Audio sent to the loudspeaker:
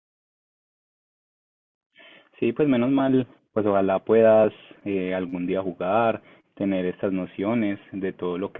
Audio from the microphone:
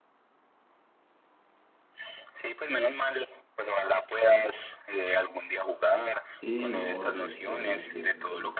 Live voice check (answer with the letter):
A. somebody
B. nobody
A